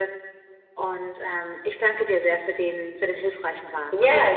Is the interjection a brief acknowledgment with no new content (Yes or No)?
No